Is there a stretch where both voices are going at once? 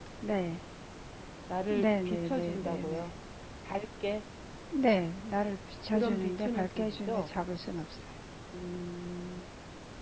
Yes, from 1.7 s

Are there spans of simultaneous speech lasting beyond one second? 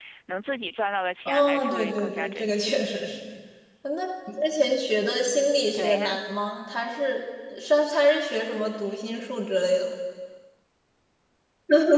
Yes, from 1.2 s

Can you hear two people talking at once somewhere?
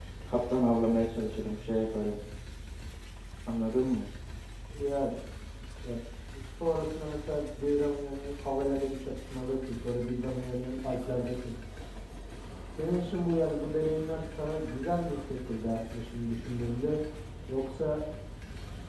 No

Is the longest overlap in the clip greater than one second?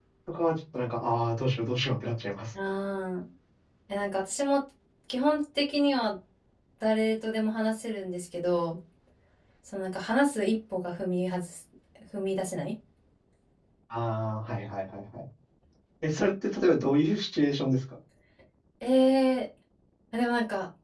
No

